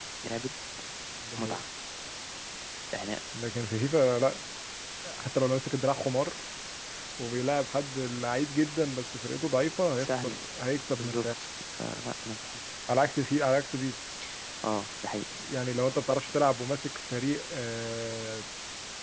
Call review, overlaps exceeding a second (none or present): none